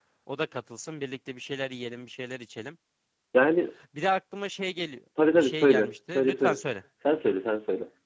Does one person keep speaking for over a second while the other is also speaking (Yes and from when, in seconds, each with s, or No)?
Yes, from 5.2 s